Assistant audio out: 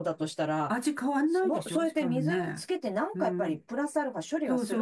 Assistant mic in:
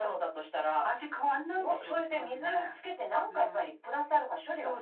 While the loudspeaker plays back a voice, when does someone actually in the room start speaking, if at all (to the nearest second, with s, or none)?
none